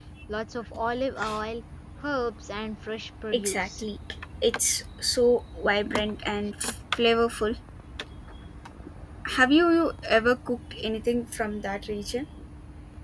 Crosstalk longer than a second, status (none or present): none